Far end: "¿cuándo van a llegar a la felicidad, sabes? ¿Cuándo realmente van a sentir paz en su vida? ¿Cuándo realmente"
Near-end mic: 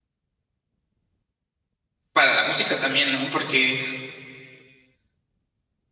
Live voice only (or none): para la música también, ¿no? Porque,